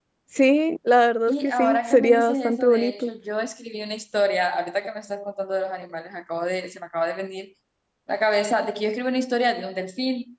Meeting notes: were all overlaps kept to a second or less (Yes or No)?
No